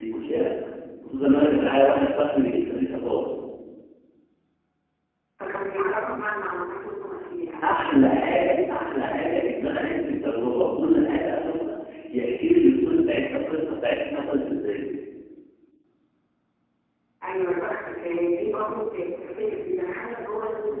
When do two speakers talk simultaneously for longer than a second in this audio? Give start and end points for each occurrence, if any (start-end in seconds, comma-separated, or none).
none